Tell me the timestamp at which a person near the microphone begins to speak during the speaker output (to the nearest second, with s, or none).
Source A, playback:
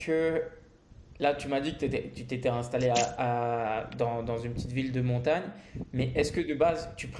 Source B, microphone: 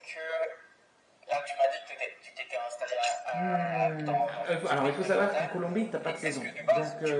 3 s